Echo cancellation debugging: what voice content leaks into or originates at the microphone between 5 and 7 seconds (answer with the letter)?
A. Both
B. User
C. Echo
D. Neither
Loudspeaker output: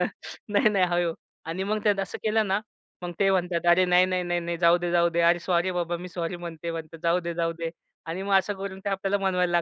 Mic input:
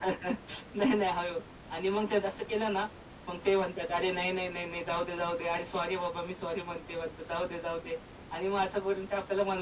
C